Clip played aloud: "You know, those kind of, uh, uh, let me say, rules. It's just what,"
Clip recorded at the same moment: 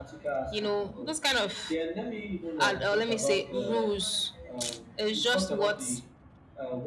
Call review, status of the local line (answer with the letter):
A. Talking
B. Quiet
A